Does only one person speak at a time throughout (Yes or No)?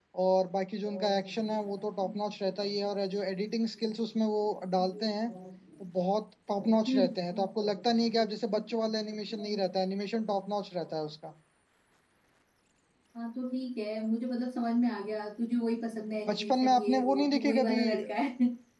No